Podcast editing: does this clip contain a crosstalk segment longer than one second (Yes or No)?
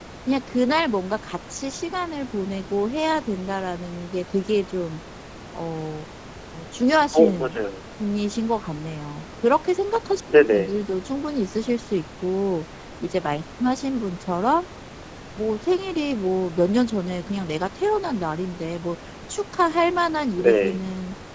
No